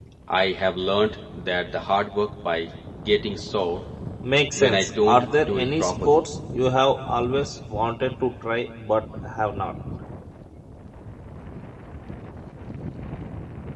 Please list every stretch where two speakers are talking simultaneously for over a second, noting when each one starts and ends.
4.6-6.2

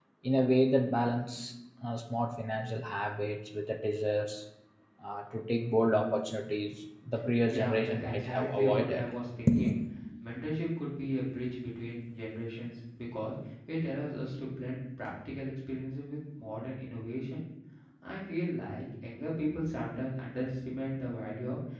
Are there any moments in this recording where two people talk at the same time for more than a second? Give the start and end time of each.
7.5-9.1

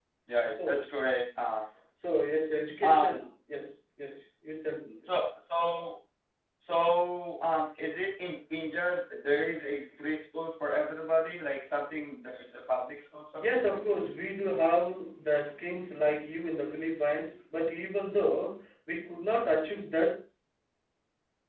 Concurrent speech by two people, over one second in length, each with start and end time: none

